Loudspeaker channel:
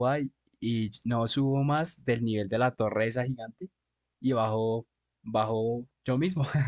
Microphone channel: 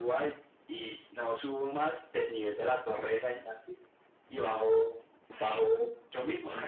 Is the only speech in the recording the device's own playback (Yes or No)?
No